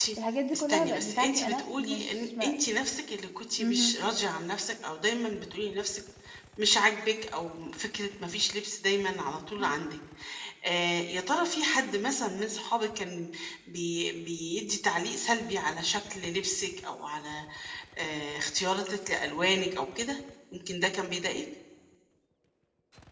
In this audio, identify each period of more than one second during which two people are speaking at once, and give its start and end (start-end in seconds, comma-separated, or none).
0.5-2.5